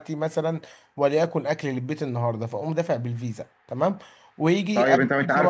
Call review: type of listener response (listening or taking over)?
taking over